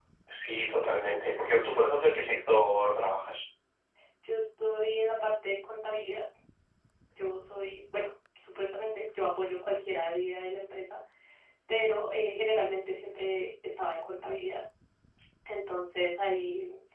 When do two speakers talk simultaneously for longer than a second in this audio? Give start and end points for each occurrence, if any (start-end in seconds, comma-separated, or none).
none